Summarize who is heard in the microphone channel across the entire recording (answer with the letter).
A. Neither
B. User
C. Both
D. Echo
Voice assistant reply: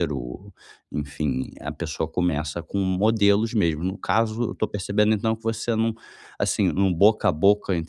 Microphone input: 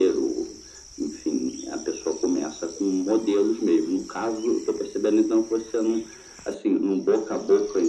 D